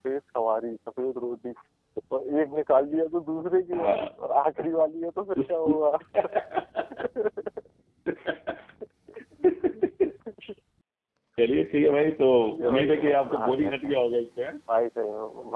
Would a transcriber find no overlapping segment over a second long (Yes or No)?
No